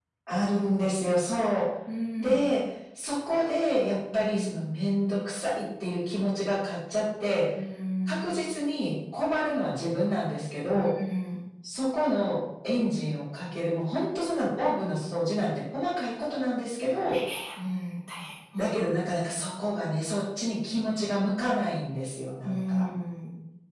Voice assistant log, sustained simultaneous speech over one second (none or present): none